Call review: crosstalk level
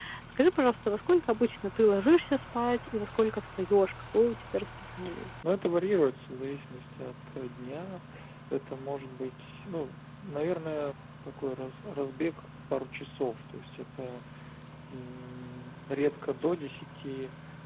none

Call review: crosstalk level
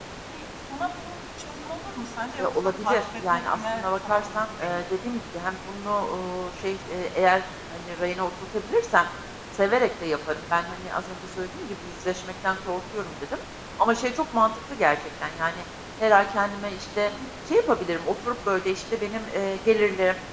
present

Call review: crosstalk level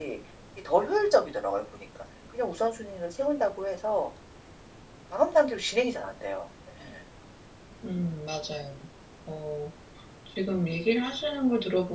none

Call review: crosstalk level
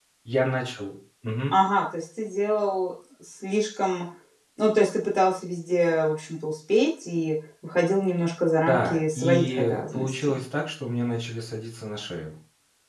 present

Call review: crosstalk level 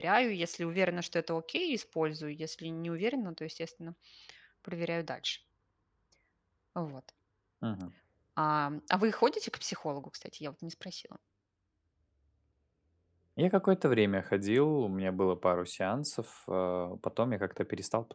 none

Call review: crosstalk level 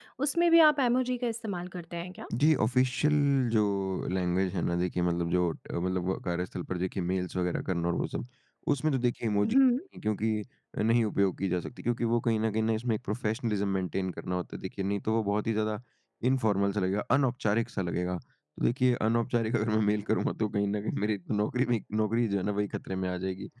none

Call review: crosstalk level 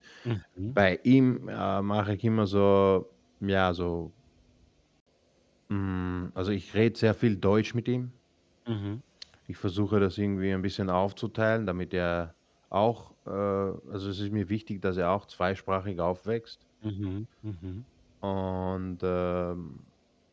none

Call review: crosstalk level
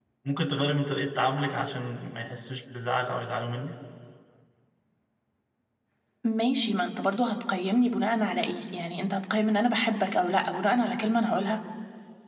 none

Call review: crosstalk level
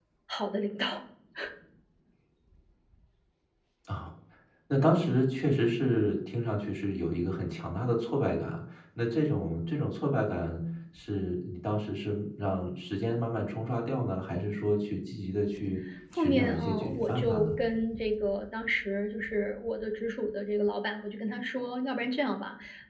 present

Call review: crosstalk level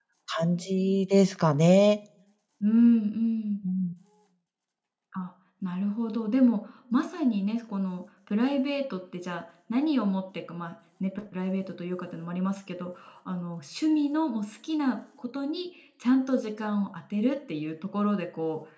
none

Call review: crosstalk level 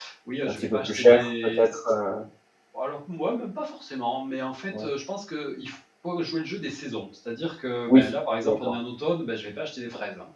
present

